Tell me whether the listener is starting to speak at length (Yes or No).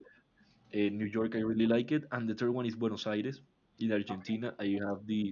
No